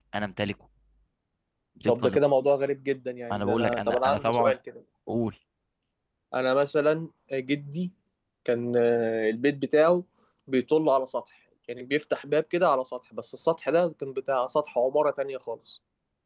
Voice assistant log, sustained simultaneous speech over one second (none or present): present